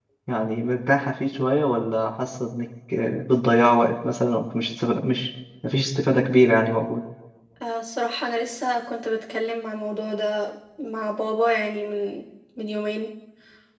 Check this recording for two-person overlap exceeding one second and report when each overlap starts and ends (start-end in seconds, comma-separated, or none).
none